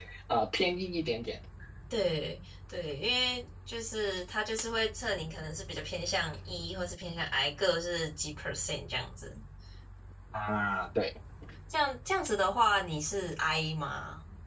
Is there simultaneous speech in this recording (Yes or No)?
No